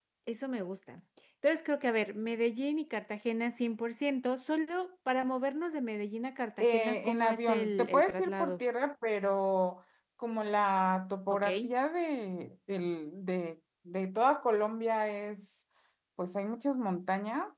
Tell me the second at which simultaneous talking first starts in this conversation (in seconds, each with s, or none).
6.6 s